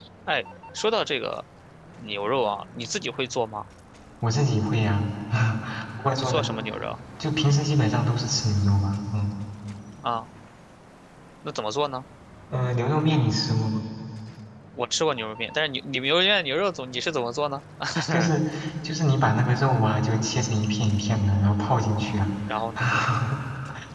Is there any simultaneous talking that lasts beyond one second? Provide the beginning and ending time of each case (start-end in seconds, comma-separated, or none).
none